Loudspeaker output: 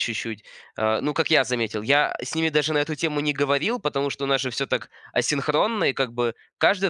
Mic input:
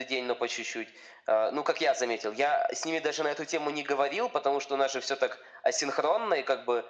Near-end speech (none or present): none